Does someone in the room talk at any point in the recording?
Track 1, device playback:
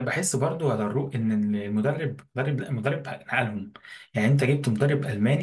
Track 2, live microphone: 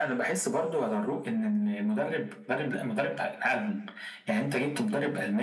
No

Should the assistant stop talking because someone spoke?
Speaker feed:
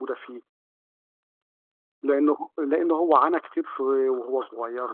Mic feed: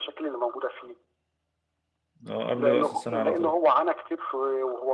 Yes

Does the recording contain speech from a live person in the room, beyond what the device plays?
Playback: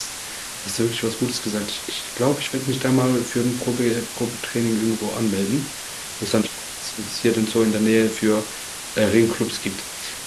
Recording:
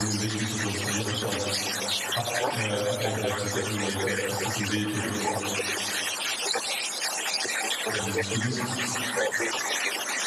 Yes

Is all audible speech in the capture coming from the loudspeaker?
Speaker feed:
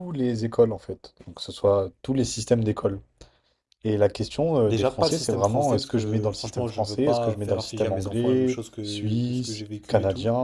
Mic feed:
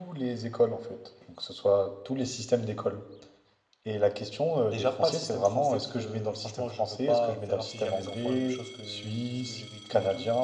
Yes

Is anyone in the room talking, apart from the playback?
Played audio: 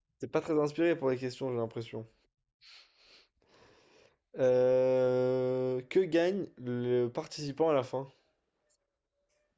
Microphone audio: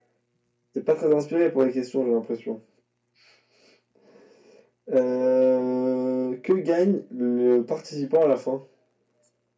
No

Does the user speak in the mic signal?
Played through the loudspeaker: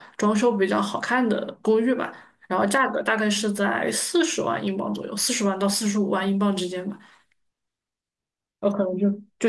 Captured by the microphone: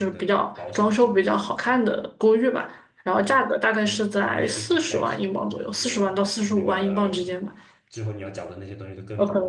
Yes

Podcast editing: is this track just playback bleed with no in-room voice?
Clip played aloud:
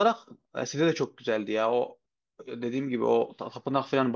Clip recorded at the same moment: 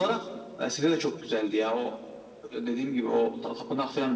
Yes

